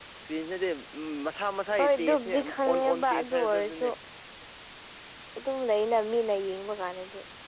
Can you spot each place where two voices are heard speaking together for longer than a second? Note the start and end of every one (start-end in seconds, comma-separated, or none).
1.8-3.9